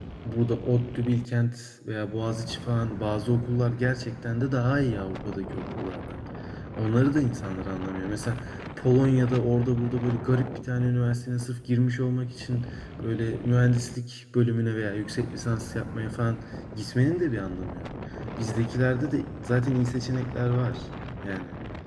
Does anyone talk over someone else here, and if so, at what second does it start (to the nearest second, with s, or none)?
none